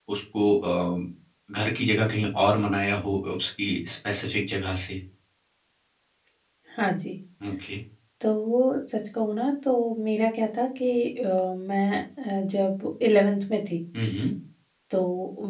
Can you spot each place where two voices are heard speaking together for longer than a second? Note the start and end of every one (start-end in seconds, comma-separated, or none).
none